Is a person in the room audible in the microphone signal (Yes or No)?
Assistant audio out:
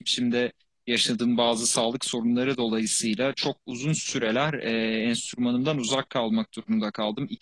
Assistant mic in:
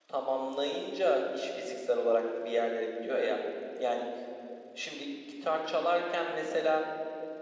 Yes